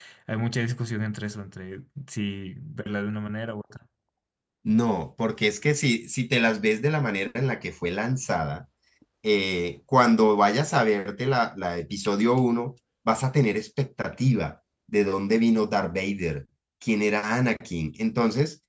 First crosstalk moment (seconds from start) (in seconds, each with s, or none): none